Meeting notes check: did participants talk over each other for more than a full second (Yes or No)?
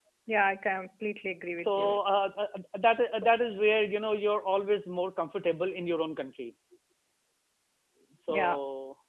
No